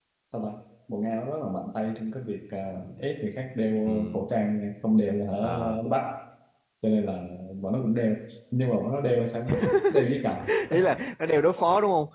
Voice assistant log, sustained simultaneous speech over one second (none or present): none